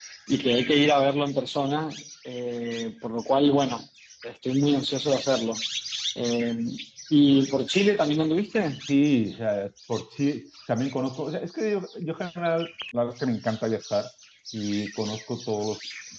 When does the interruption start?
none

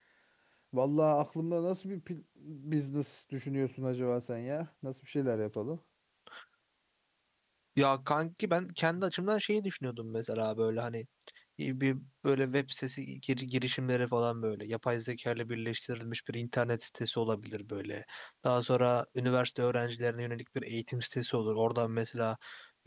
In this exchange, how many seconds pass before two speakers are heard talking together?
none

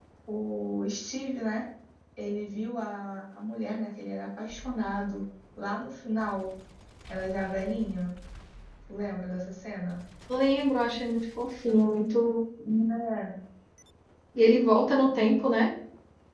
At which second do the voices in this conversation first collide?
none

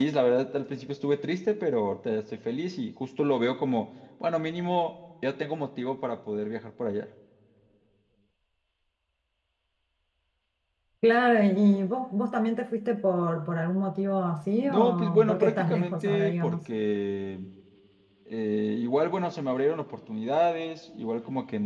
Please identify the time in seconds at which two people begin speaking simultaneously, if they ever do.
15 s

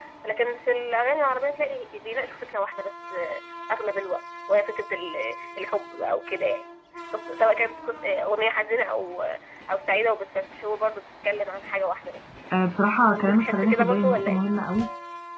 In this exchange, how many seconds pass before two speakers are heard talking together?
13 s

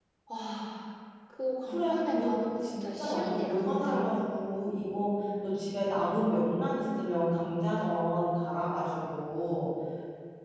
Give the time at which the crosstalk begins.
2 s

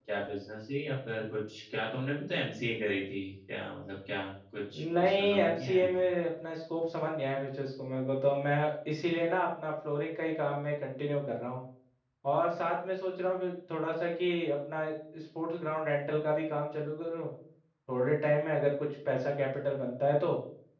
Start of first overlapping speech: 5 s

